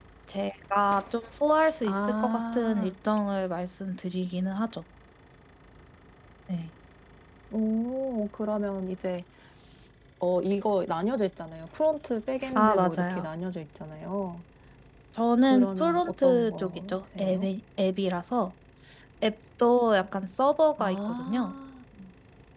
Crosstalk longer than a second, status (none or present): present